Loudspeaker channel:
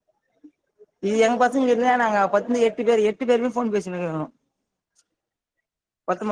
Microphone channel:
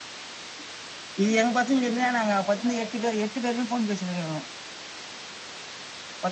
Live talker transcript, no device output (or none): none